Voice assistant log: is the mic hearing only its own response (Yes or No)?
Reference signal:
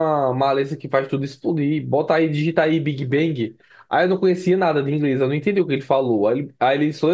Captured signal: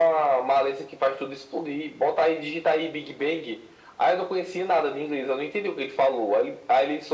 Yes